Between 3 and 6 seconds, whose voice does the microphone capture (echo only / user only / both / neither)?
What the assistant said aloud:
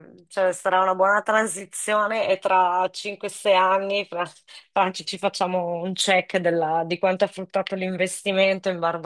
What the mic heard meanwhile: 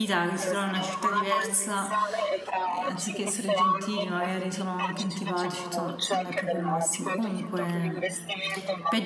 both